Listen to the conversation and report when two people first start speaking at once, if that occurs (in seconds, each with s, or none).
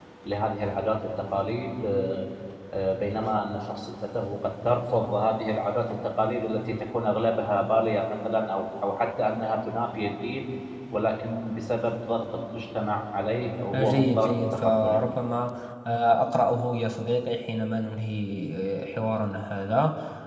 13.7 s